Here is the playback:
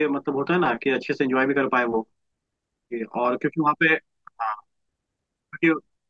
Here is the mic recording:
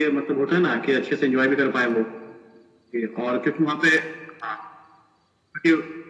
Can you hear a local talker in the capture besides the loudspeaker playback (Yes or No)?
No